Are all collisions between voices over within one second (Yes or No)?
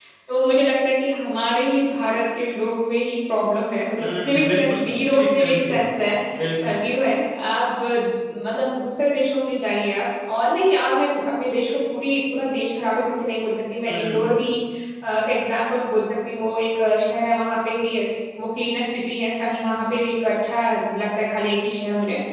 No